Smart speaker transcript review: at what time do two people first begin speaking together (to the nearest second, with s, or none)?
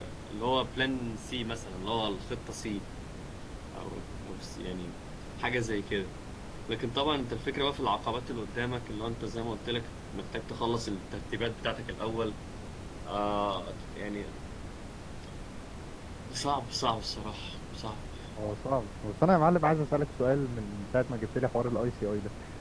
none